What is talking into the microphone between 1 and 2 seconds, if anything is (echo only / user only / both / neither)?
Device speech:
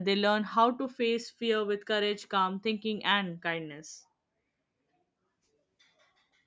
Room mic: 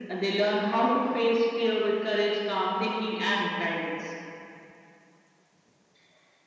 echo only